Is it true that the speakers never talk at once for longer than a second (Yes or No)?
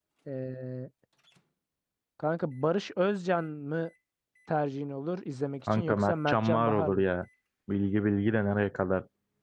No